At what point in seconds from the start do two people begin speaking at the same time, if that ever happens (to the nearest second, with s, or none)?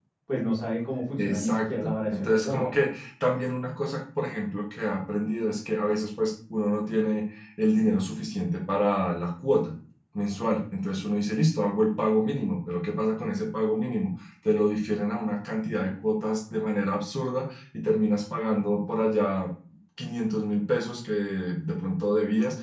1 s